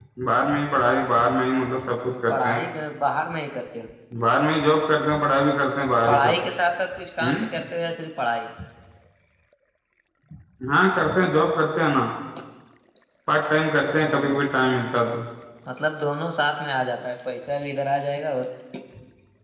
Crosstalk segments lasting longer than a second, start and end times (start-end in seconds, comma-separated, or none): none